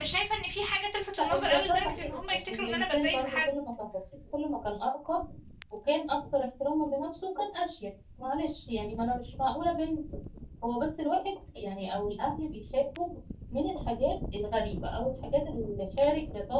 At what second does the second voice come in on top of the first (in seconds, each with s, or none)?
1.2 s